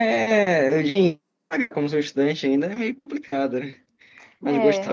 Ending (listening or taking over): listening